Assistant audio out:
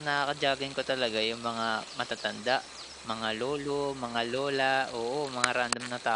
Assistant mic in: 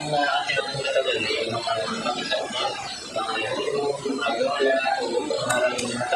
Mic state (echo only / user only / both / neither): echo only